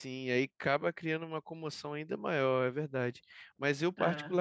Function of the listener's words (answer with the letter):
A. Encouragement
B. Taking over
A